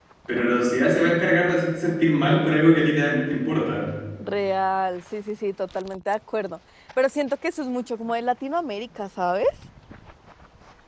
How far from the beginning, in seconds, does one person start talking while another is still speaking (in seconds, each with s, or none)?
none